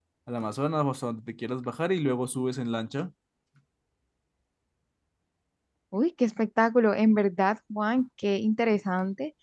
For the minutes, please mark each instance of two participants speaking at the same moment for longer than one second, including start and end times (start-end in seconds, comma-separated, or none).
none